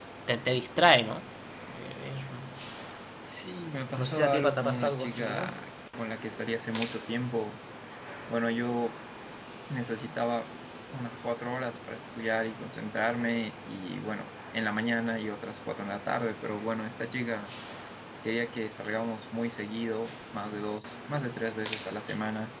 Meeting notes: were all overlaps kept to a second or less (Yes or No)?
No